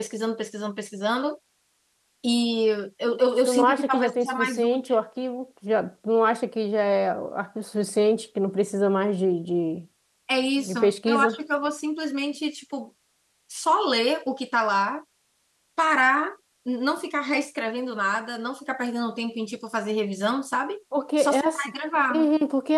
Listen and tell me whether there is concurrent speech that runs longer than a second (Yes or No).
Yes